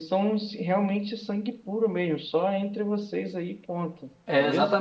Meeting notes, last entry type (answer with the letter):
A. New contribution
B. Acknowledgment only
A